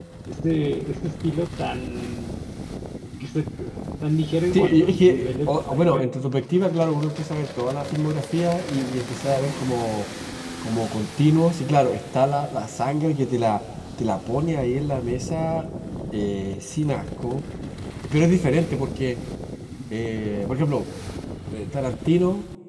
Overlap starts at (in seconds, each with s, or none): 4.5 s